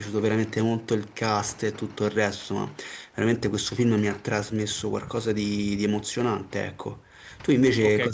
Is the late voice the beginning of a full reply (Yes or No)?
Yes